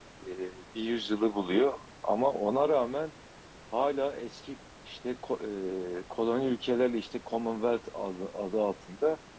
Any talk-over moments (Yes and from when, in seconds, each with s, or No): No